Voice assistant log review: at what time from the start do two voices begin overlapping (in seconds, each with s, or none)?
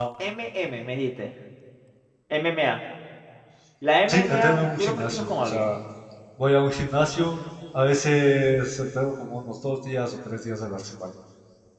4.1 s